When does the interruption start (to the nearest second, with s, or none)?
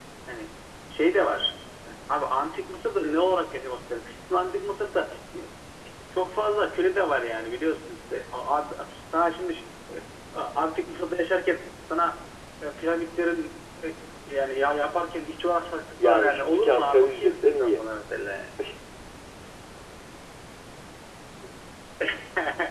16 s